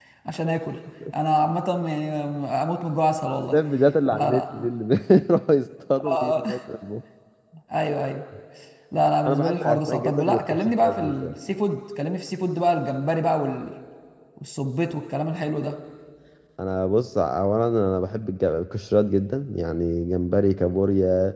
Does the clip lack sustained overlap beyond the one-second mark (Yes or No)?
No